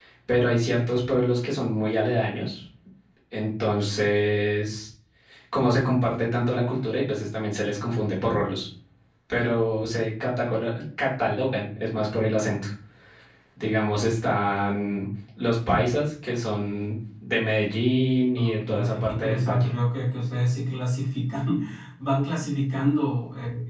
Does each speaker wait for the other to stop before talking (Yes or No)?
No